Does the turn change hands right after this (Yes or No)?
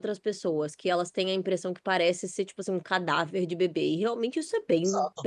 Yes